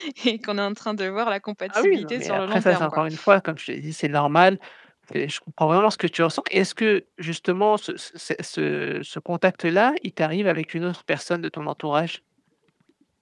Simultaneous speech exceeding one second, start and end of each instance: 1.7-3.0

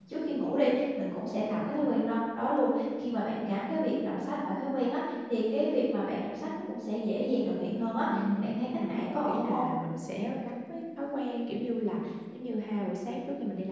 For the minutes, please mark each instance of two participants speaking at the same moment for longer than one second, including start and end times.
8.3-9.7

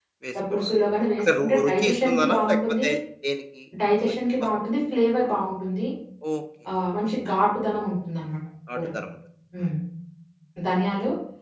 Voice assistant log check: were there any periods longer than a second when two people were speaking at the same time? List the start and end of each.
1.2-2.9

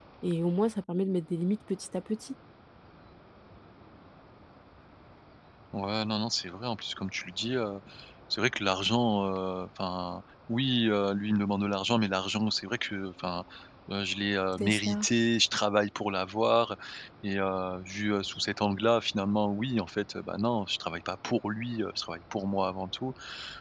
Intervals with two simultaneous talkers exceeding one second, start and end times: none

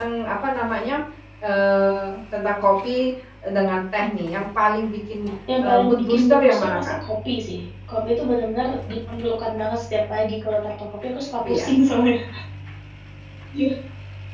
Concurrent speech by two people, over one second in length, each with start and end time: 5.6-7.0

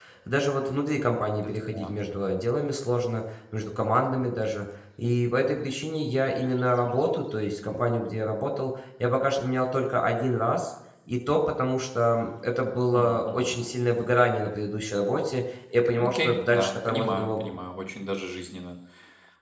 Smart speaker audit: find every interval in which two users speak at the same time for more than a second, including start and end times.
16.0-17.4

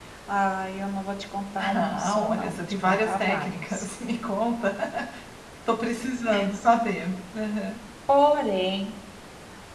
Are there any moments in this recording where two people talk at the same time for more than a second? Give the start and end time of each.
1.6-3.8

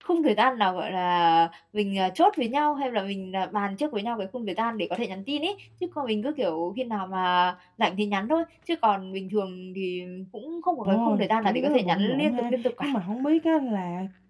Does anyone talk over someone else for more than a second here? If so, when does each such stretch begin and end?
10.8-12.9

